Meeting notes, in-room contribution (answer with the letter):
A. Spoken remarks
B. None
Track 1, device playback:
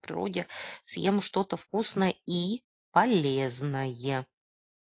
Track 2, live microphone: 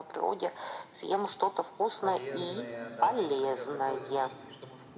A